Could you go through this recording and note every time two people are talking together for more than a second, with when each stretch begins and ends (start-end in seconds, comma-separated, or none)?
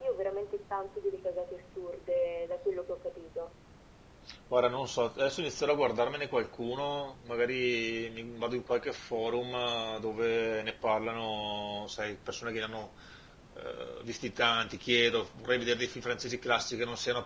none